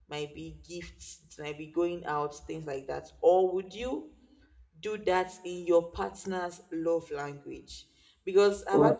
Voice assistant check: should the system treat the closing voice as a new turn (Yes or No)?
No